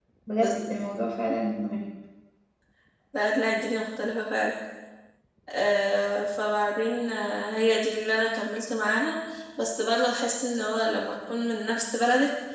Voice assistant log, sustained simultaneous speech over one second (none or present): none